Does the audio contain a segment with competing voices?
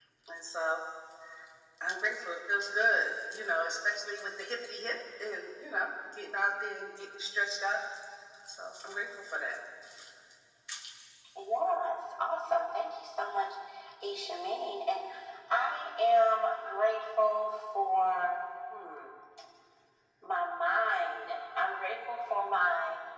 No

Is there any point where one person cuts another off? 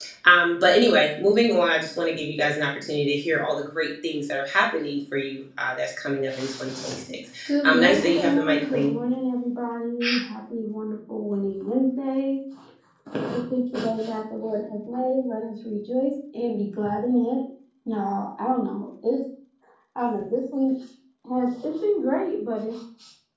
Yes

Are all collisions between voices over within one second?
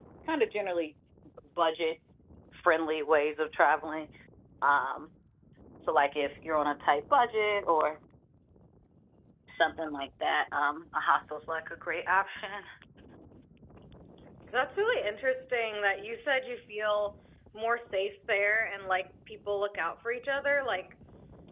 Yes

